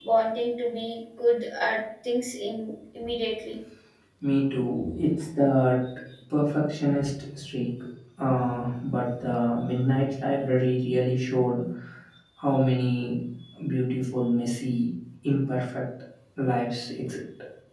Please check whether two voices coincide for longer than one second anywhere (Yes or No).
No